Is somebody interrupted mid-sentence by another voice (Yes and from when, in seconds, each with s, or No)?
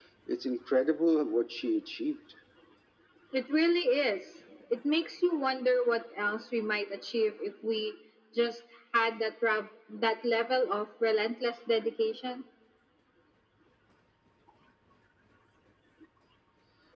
No